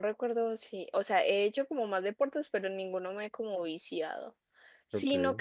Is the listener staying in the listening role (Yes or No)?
Yes